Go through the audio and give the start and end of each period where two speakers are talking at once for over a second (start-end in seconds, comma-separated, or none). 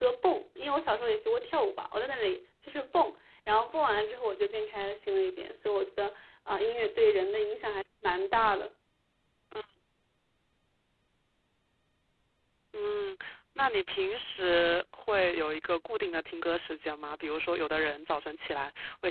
none